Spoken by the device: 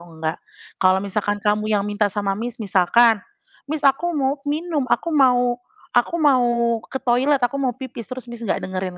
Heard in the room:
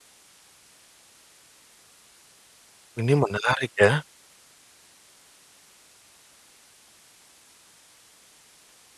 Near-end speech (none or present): present